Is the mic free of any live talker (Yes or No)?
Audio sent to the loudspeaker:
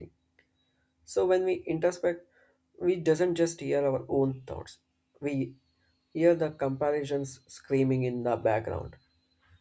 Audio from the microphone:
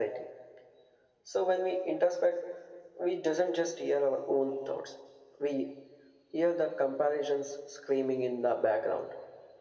Yes